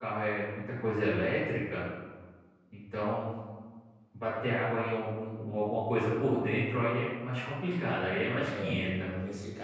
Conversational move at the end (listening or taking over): taking over